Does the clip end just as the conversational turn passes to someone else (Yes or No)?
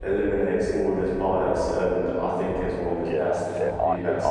Yes